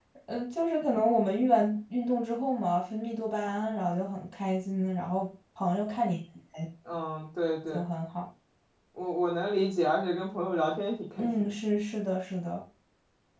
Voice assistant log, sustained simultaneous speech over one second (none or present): none